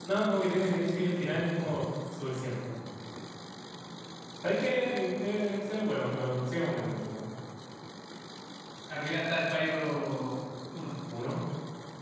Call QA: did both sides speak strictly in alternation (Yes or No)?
Yes